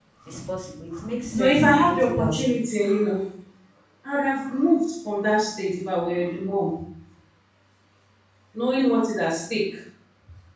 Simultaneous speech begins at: 1 s

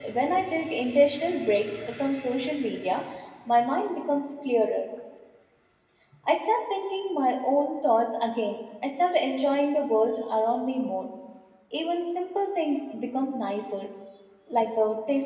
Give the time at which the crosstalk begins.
none

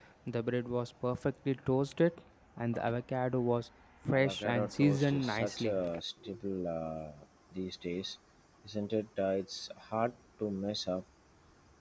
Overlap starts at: 4 s

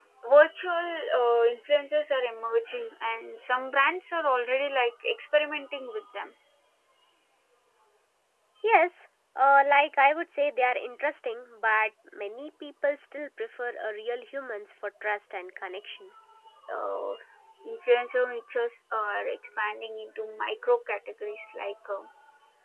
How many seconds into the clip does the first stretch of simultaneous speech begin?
none

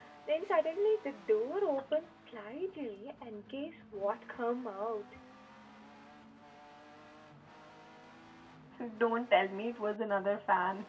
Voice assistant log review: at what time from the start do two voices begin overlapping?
none

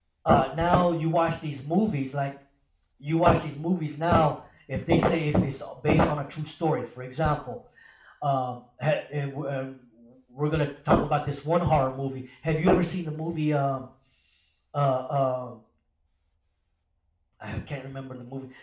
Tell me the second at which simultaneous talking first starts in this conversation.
none

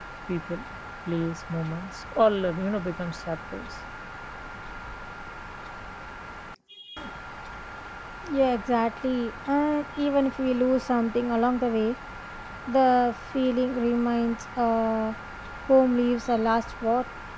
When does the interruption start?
none

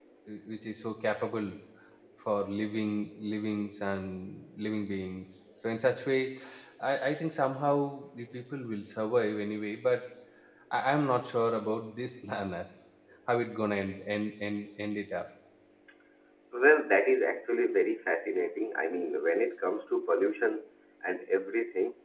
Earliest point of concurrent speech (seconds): none

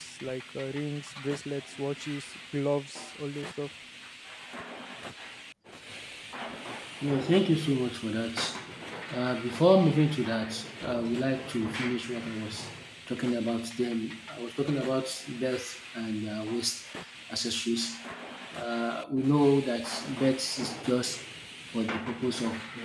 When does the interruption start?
none

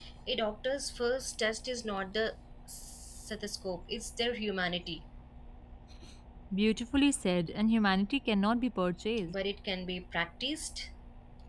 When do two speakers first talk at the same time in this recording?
none

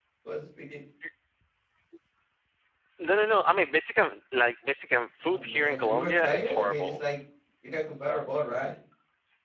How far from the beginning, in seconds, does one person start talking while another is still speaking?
5 s

